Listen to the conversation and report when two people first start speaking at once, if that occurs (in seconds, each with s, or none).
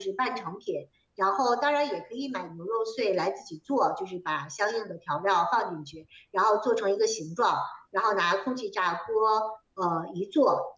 none